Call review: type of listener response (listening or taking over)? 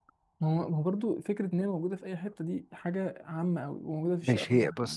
taking over